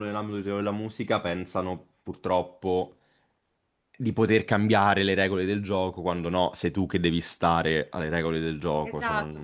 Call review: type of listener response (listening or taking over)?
taking over